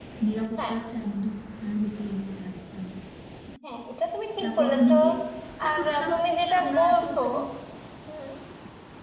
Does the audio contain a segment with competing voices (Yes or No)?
Yes